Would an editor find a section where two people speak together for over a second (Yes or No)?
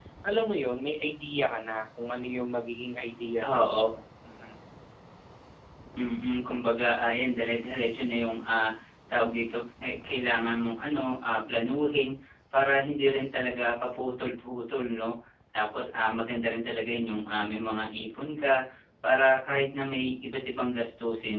No